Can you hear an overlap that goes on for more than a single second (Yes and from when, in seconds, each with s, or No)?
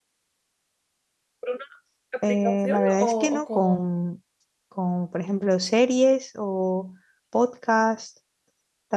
Yes, from 2.3 s